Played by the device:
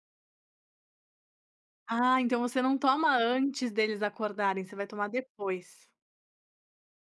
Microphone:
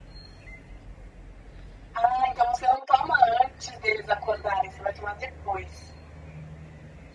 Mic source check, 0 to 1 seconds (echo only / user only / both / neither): neither